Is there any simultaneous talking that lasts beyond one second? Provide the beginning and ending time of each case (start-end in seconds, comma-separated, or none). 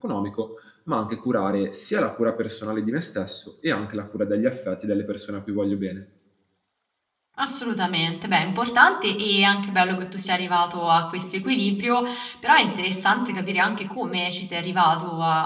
none